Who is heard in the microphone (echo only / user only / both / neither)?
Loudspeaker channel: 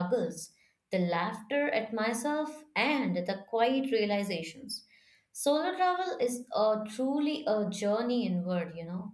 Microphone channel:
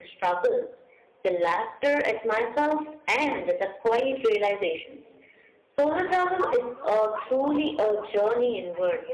both